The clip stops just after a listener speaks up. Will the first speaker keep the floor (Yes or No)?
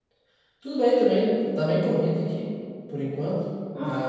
Yes